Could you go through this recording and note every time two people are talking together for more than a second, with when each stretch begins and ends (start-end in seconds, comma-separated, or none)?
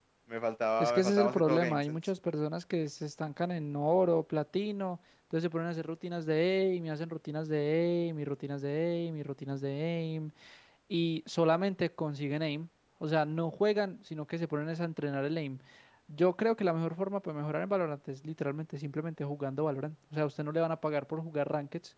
0.8-2.0